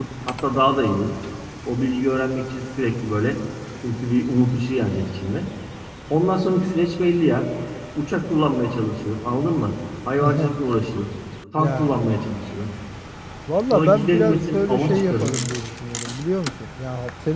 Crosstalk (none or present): present